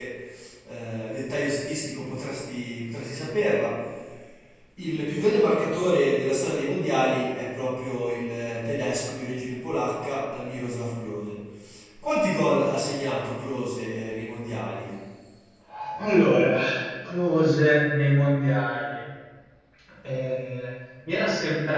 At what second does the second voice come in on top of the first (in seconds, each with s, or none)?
none